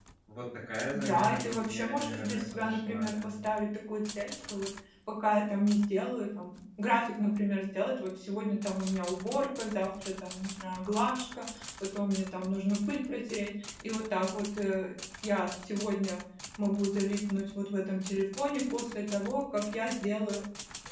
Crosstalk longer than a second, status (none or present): present